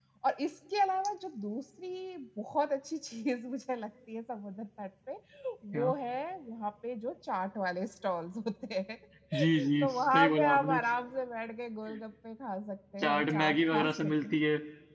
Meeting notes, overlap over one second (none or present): present